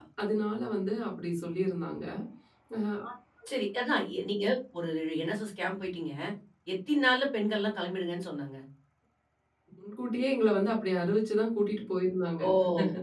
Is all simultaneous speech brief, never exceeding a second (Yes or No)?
Yes